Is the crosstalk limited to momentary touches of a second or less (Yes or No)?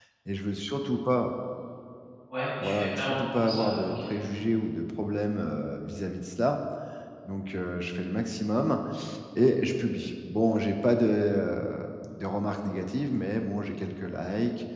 No